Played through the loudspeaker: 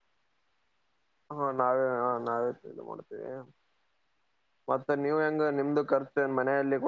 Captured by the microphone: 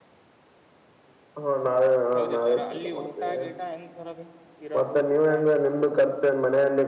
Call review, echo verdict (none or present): present